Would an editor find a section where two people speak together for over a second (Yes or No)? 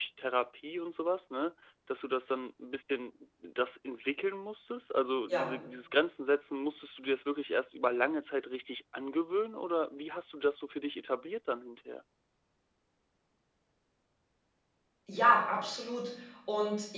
No